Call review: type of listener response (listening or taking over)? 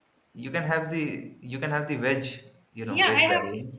taking over